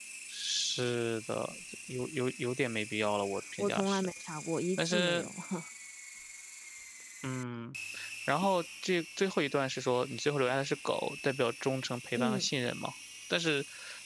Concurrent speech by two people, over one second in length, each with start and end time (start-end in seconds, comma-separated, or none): none